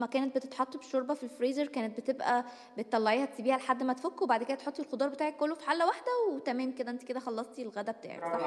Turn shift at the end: Yes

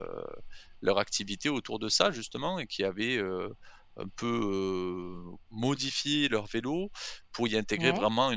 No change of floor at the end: Yes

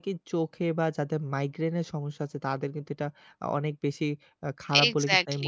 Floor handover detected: No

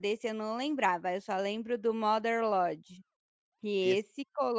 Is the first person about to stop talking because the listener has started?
No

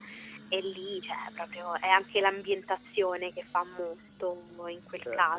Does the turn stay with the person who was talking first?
No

